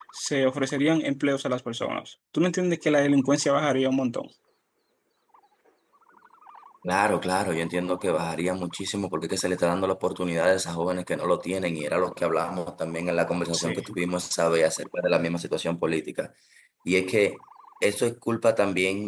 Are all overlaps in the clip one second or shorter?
Yes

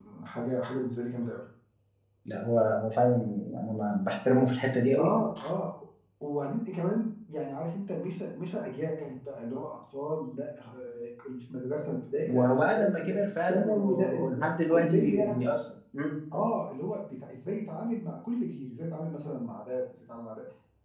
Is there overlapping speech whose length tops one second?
Yes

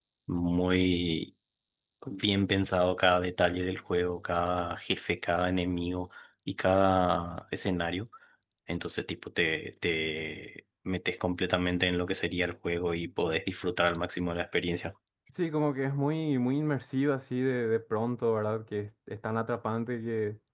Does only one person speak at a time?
Yes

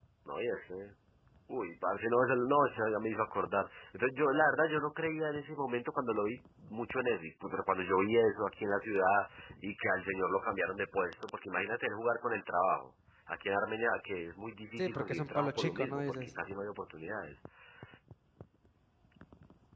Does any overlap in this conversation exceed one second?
Yes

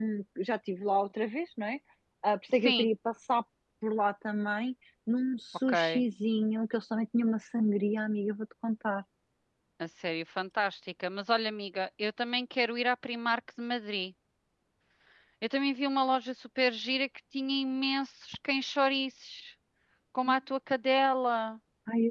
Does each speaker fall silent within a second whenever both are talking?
Yes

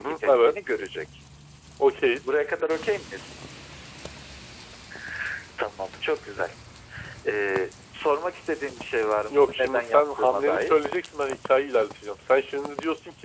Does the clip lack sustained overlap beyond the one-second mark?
No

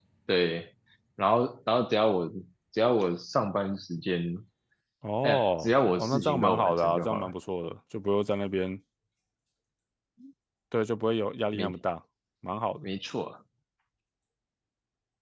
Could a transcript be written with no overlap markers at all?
No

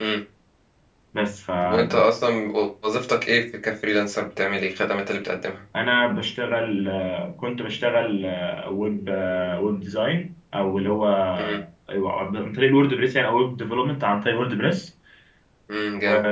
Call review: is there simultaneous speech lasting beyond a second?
No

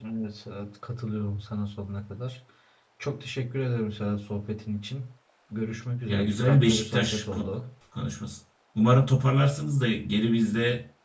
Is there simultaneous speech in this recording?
Yes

